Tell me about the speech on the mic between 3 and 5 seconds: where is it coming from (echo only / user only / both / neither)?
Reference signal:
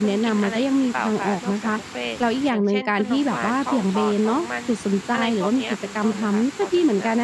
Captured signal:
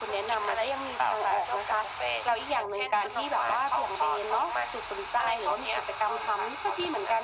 echo only